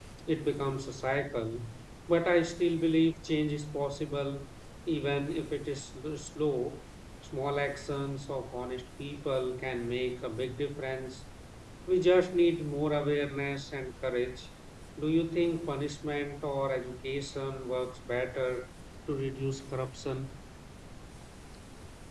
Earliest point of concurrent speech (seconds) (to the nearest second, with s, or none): none